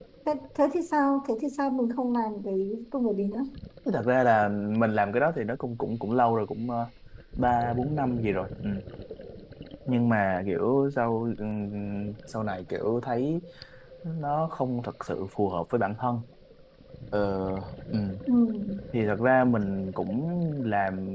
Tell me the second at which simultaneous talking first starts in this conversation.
none

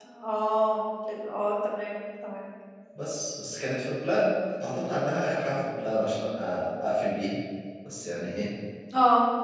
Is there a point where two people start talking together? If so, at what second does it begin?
none

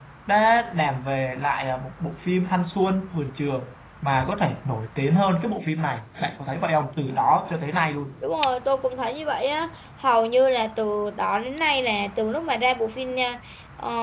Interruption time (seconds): none

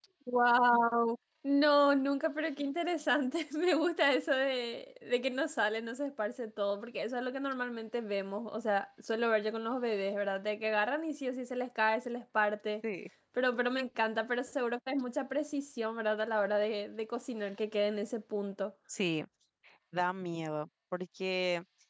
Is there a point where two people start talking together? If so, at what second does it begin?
none

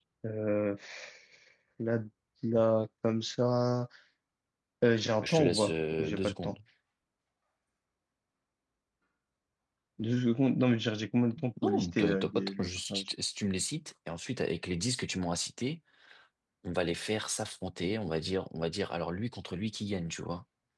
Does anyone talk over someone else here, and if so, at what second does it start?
5.2 s

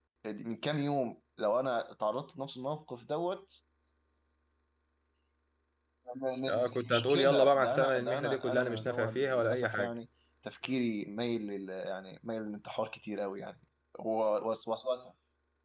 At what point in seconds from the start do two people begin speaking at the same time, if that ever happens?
6.5 s

